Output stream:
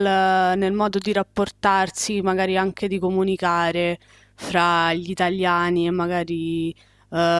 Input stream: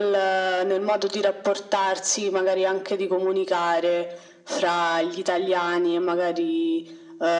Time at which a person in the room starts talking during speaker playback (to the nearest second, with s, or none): none